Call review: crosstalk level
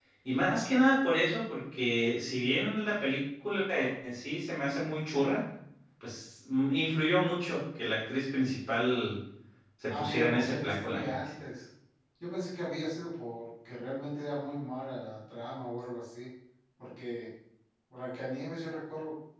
present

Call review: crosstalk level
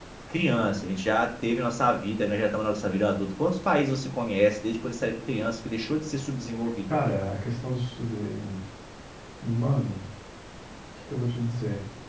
none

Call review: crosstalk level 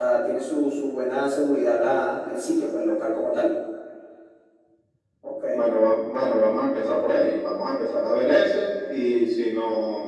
none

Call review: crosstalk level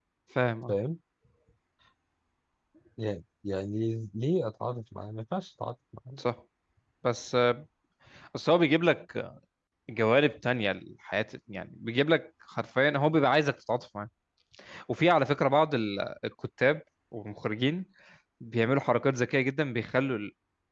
none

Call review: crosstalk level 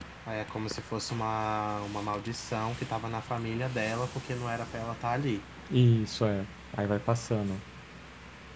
none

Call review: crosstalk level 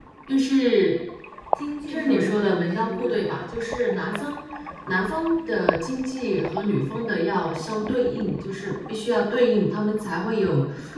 present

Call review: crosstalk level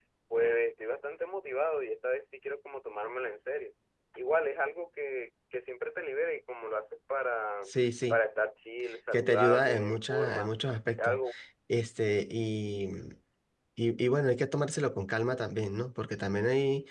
present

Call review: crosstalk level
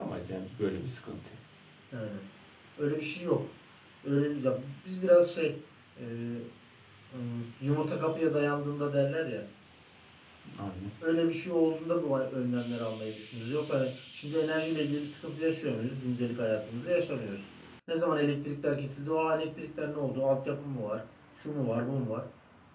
none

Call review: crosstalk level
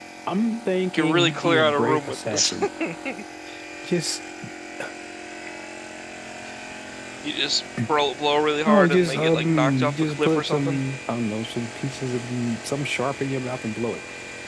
present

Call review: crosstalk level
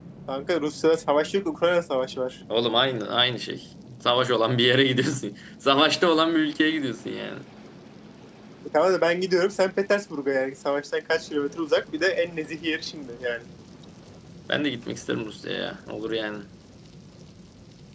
none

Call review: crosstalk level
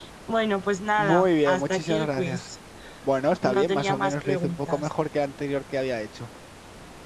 present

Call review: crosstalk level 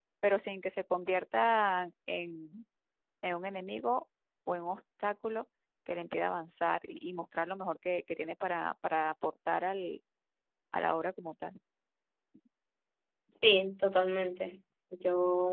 none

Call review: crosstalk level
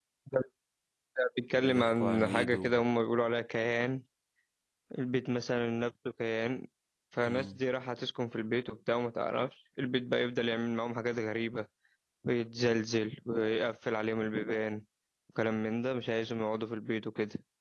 present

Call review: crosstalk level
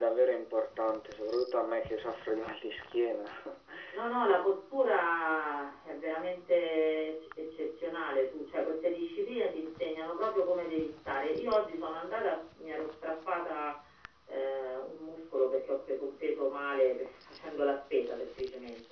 none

